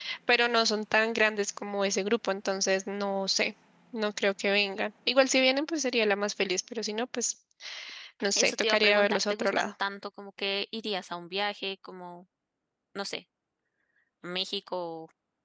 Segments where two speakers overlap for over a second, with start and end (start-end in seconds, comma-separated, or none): 8.3-9.7